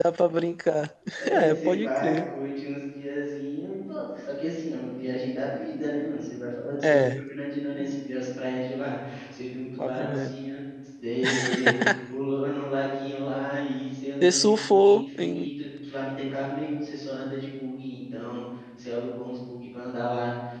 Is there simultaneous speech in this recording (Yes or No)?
Yes